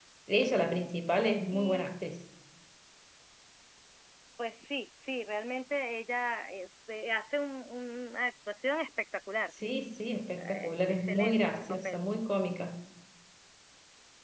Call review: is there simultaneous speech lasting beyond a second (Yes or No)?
Yes